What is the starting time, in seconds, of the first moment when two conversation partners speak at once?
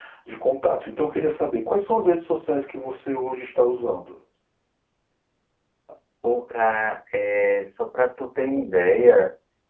none

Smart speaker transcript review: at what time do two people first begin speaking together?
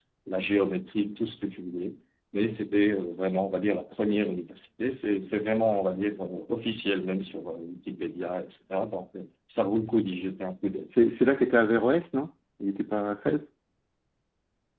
none

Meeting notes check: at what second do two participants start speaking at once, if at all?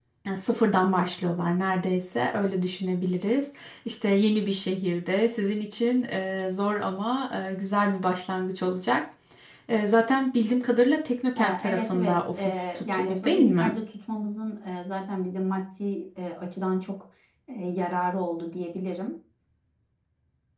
11.4 s

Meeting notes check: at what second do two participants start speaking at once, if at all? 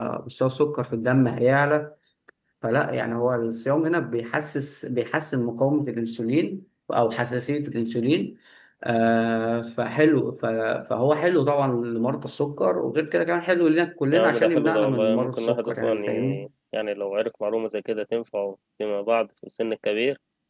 14.1 s

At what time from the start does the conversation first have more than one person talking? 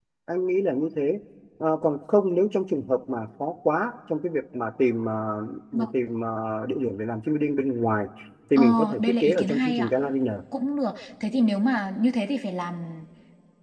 8.6 s

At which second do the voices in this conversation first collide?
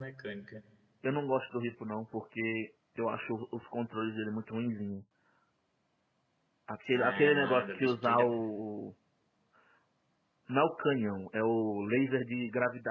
6.9 s

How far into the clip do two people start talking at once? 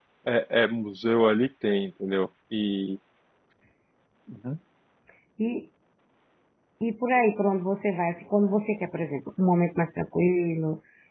none

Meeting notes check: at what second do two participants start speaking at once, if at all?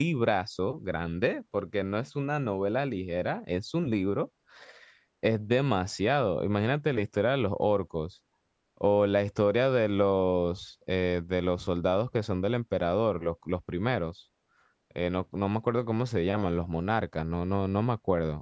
none

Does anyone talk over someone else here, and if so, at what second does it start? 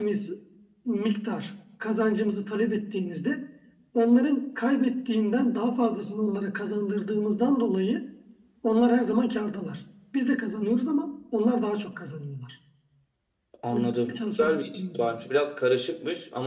13.7 s

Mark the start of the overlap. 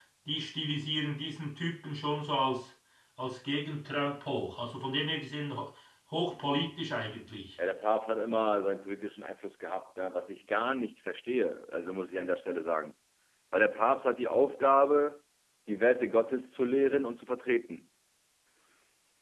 none

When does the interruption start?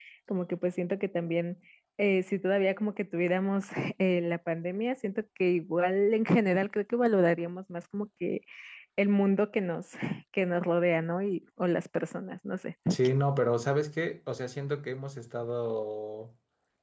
none

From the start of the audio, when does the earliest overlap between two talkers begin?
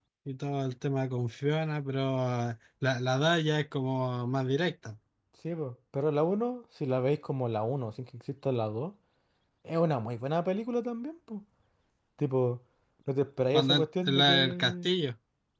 13.5 s

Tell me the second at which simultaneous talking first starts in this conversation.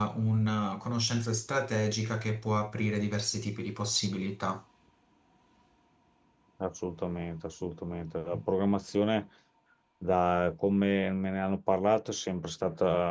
none

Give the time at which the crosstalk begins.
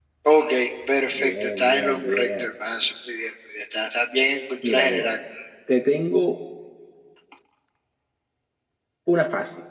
1.1 s

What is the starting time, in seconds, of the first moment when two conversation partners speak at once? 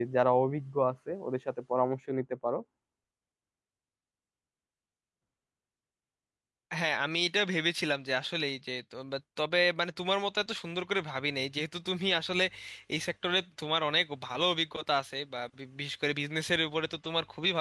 none

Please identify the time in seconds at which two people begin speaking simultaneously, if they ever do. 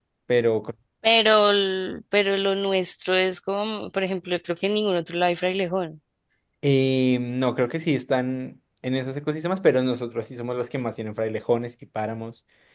none

